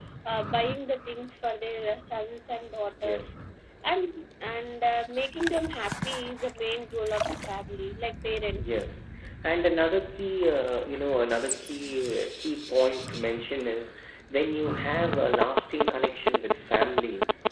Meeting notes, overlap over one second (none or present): none